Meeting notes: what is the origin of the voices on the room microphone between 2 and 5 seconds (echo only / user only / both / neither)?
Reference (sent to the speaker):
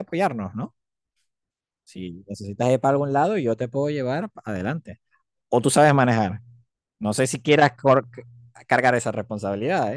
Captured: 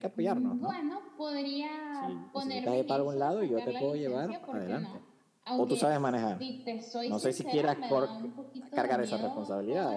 both